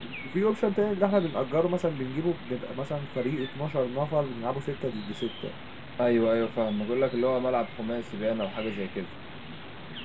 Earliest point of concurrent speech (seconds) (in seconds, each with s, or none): none